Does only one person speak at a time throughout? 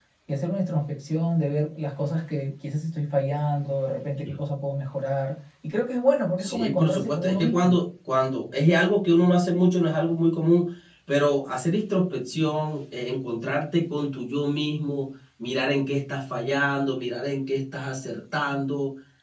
No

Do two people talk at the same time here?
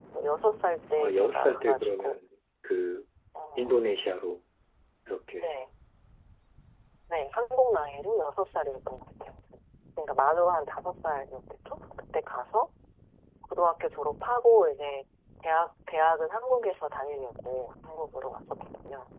Yes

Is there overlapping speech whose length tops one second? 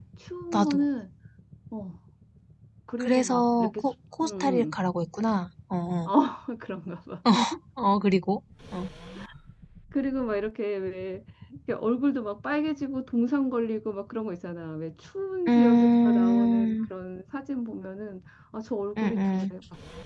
Yes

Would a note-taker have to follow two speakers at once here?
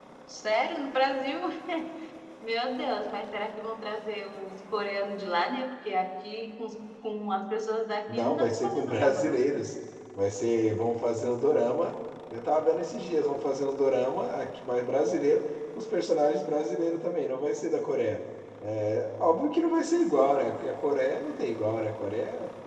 Yes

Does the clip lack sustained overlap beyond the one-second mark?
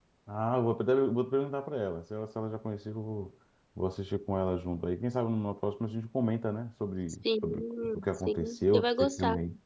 No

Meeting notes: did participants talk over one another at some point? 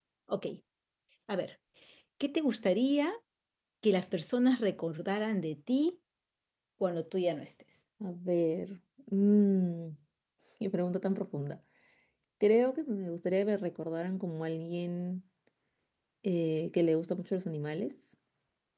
No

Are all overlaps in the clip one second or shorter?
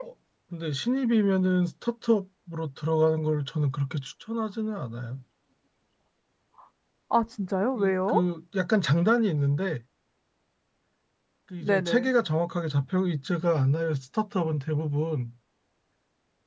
Yes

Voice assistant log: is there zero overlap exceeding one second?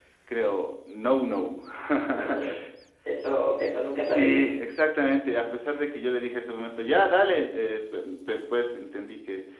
Yes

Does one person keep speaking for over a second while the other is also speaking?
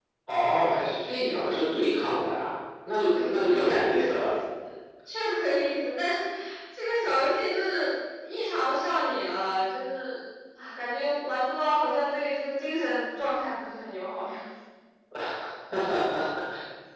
Yes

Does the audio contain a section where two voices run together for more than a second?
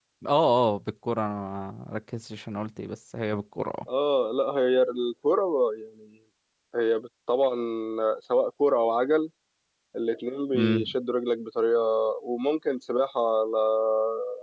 No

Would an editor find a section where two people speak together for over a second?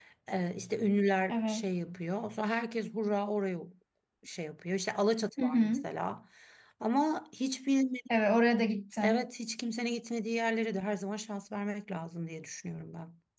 No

